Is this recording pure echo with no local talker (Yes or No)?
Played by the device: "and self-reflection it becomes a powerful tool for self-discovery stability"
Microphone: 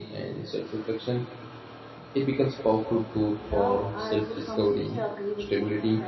No